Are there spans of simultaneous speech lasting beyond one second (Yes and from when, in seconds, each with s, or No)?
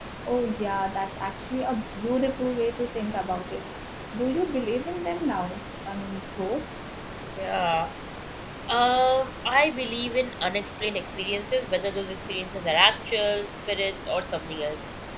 No